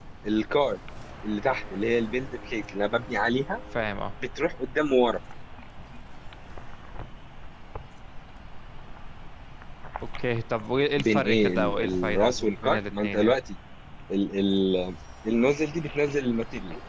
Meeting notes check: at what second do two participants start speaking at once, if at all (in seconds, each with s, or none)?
11.0 s